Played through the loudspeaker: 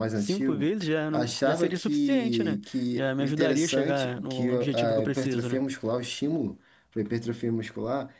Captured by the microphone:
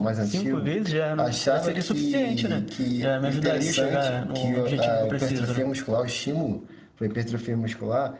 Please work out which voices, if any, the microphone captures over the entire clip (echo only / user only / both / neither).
echo only